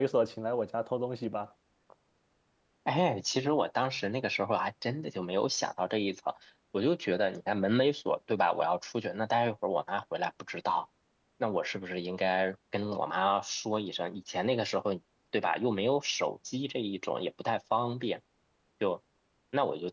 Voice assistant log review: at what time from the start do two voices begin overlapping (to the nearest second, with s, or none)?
none